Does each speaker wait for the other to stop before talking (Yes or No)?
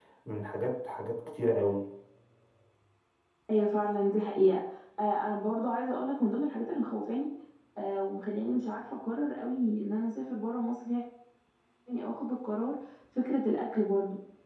Yes